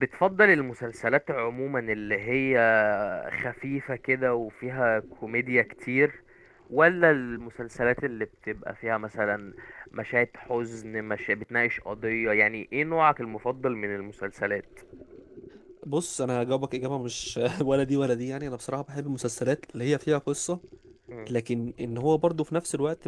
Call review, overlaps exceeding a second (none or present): none